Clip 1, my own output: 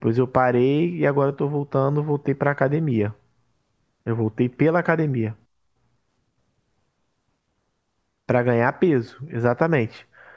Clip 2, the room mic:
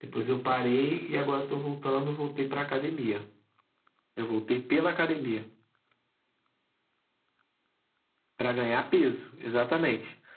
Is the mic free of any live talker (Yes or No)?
Yes